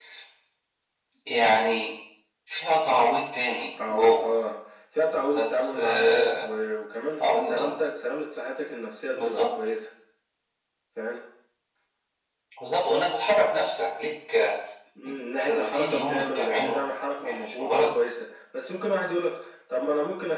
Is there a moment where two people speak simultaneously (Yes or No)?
Yes